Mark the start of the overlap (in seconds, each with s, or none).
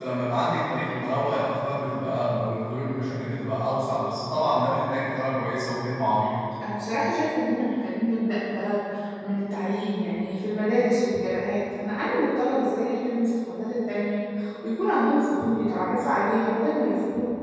none